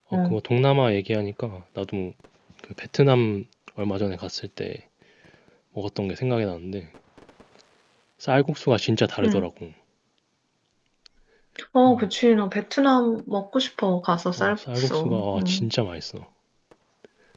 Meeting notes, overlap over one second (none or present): present